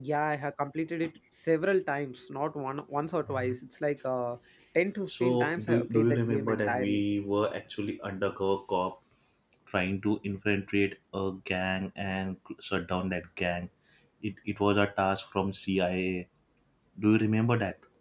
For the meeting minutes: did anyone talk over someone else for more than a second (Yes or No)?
Yes